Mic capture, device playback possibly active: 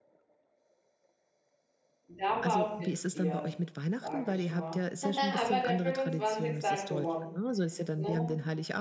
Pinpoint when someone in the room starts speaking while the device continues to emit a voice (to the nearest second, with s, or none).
2 s